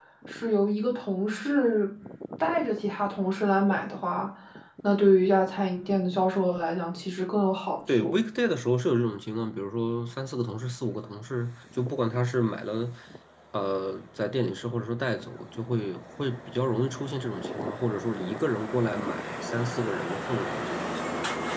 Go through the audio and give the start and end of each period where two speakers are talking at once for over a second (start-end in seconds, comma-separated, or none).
none